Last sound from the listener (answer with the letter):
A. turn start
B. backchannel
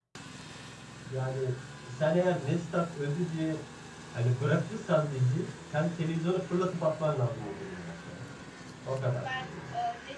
A